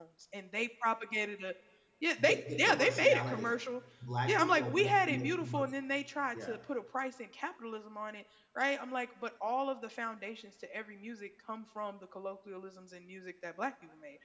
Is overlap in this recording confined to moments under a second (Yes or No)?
No